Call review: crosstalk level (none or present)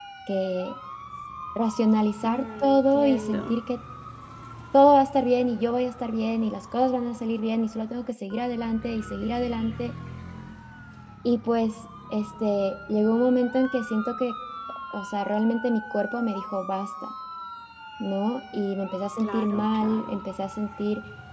present